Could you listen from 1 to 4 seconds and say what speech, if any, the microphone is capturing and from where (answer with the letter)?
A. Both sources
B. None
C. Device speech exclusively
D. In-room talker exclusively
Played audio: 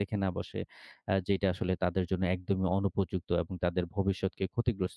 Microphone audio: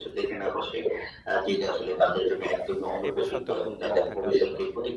A